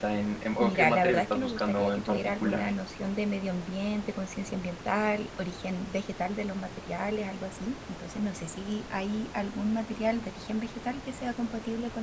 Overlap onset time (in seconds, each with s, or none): 0.6 s